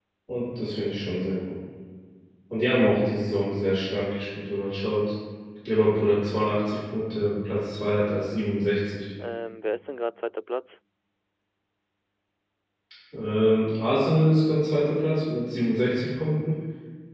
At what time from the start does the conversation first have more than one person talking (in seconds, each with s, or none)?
none